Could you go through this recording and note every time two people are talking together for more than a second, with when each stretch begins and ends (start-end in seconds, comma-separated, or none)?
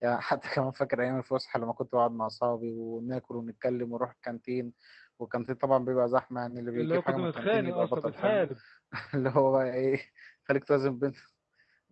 6.8-8.4